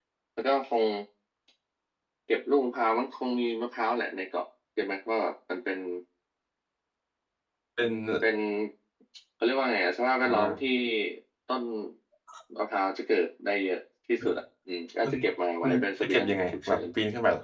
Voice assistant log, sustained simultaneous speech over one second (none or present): present